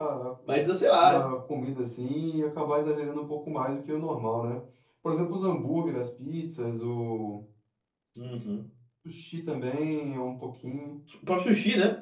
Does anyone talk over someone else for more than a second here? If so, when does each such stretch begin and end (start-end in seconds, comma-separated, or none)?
none